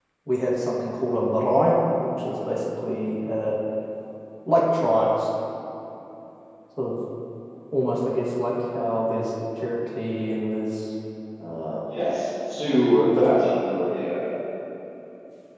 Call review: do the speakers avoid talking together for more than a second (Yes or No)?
Yes